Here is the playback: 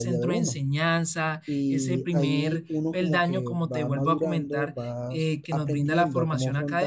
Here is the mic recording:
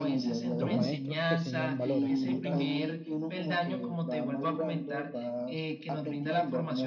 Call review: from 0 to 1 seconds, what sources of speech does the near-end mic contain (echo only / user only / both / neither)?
both